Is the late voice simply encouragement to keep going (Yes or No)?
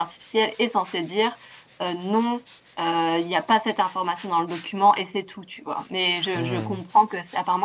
Yes